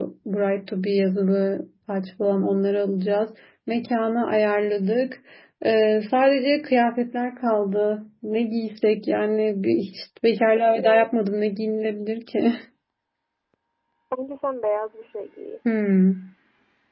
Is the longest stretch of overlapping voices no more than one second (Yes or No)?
Yes